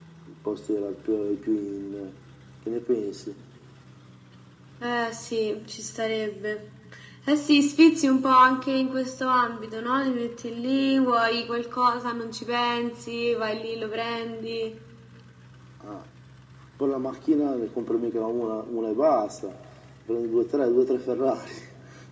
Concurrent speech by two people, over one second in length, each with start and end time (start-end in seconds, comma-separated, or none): none